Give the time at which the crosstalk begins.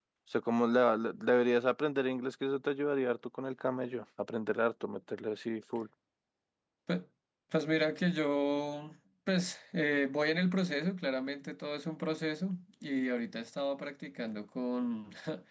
none

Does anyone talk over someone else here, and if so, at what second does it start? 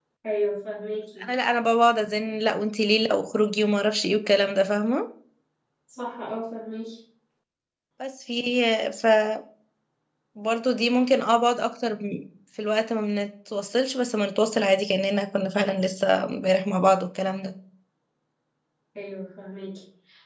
none

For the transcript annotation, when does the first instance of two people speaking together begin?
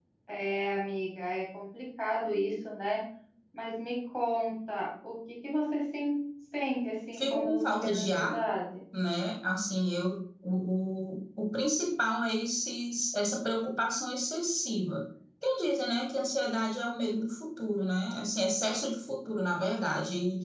7.1 s

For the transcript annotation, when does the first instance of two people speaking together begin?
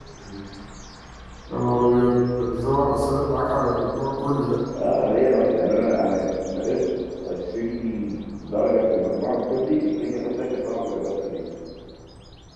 none

